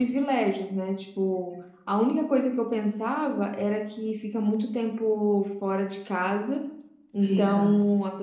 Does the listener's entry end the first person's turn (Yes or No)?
No